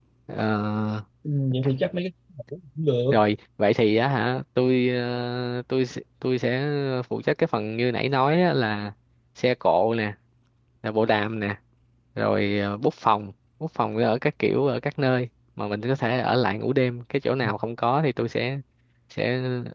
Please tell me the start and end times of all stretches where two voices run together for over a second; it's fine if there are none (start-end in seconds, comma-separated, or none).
none